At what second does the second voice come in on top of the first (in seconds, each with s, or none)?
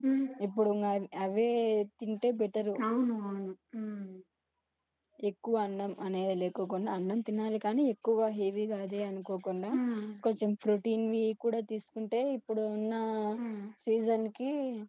none